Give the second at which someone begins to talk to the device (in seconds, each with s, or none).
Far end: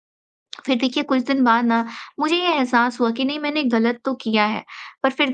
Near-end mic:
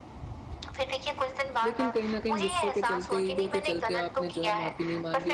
1.6 s